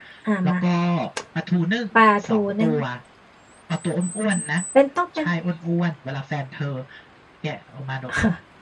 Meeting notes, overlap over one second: none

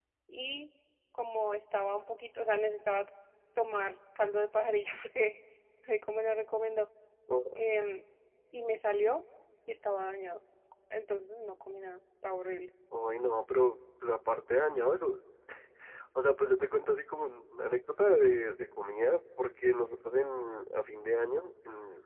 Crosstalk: none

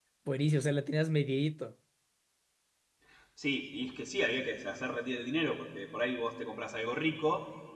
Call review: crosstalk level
none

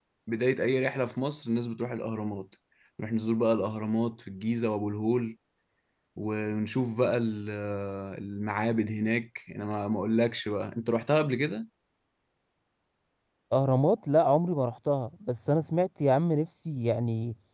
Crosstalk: none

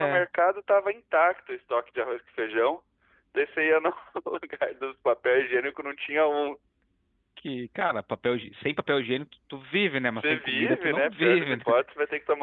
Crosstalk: present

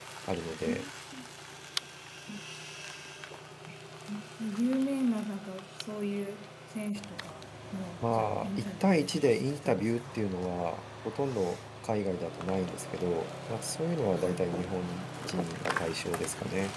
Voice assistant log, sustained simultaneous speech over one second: present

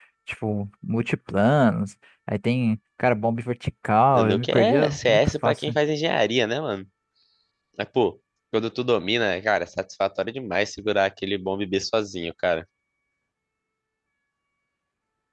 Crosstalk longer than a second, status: present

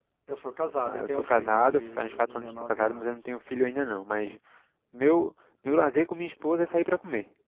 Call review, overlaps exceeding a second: present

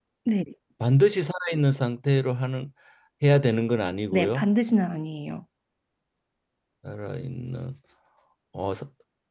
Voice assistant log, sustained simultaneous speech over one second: none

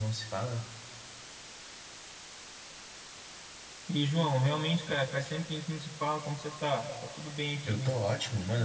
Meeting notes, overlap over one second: none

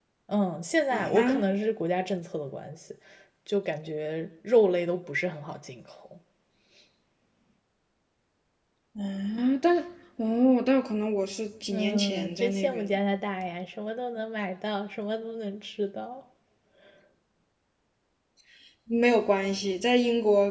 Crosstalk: present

